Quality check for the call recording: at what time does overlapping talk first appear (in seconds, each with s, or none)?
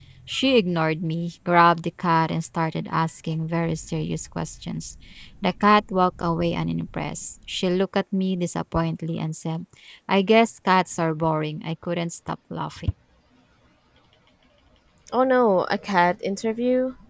none